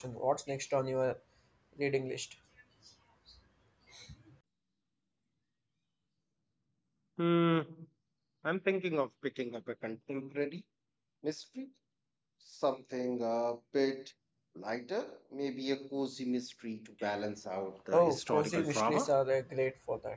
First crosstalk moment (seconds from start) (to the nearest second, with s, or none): 18 s